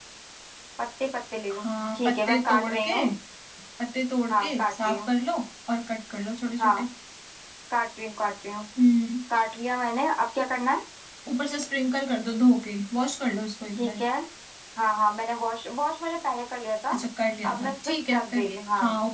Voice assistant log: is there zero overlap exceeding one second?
No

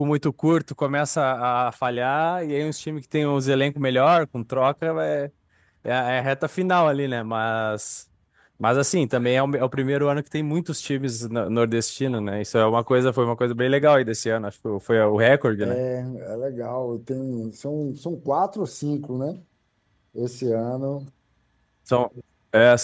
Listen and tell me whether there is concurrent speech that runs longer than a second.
No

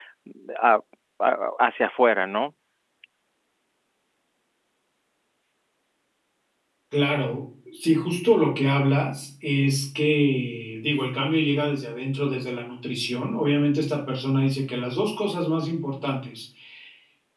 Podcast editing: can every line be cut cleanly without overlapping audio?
Yes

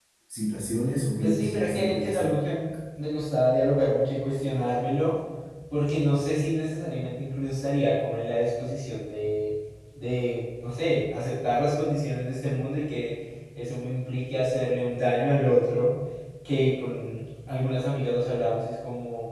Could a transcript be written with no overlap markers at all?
No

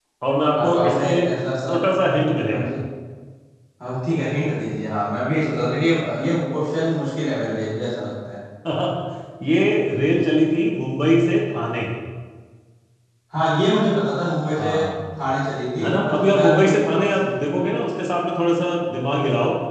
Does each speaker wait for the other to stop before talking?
No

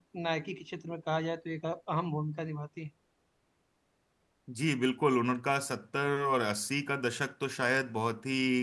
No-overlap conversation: Yes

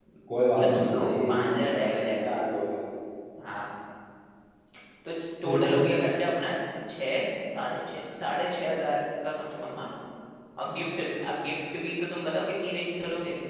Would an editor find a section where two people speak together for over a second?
Yes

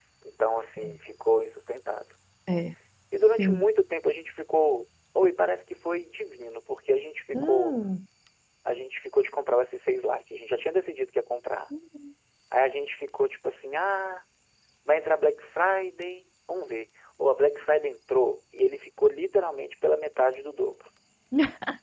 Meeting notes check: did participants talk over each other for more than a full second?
No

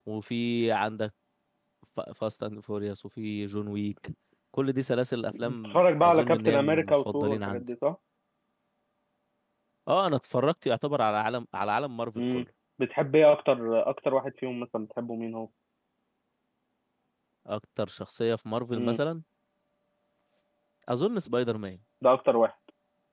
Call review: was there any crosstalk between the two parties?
Yes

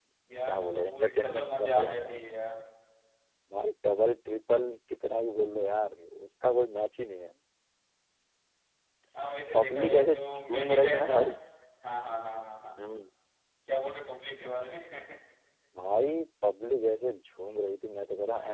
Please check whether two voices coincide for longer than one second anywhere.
Yes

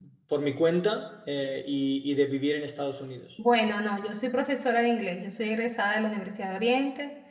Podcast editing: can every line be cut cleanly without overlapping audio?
Yes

